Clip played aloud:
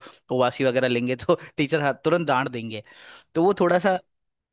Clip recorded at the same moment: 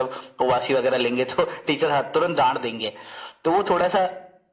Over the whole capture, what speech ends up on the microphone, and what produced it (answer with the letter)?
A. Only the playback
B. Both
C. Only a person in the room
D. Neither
A